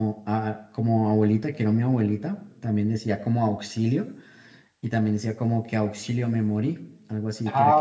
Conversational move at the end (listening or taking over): taking over